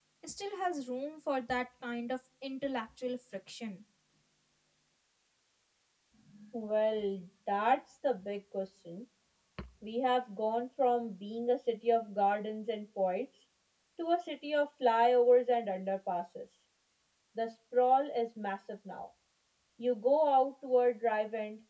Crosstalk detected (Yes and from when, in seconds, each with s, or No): No